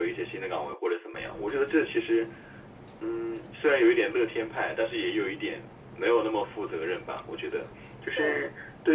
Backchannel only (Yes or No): Yes